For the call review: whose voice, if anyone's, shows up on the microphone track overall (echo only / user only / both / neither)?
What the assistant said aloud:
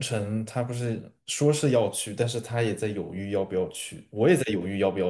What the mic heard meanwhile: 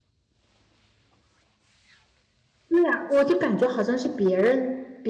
user only